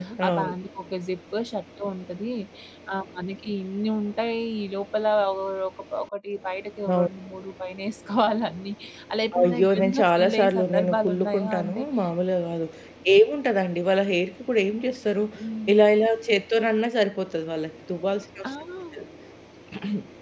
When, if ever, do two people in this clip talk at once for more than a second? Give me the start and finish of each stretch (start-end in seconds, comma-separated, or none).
9.4-11.8